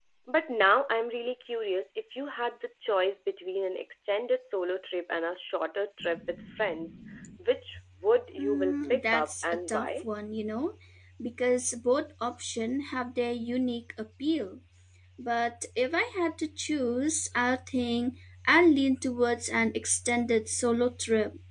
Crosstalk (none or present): present